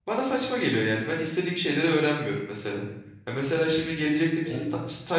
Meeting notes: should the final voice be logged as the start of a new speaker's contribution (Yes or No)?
No